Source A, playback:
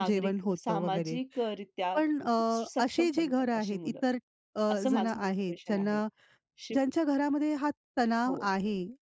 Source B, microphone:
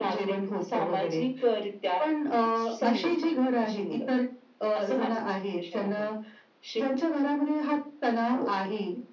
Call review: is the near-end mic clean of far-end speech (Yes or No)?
No